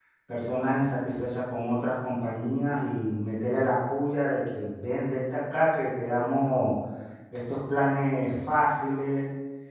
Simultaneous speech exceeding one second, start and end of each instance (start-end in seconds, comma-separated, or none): none